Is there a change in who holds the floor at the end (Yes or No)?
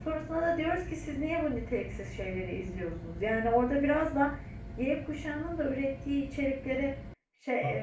No